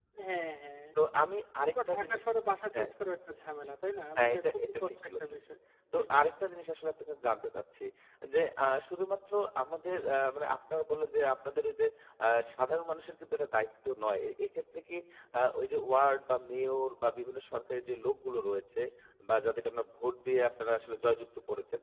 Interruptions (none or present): present